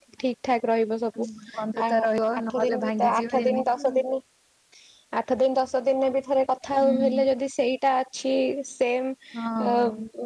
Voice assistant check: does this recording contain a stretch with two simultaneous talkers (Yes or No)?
Yes